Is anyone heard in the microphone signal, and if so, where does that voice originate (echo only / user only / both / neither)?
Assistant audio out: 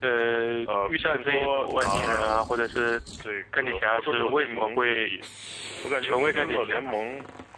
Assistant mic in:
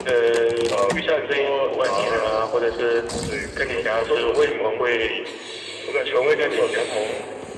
echo only